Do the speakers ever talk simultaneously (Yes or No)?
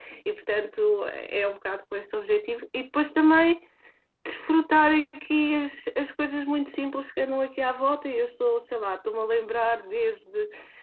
No